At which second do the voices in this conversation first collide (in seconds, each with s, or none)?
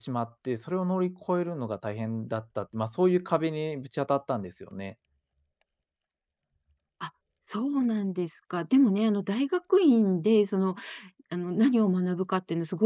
none